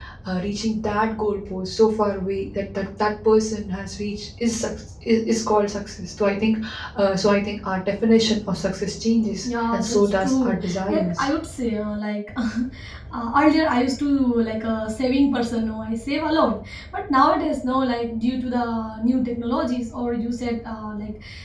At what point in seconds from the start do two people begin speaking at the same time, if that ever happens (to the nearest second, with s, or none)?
10 s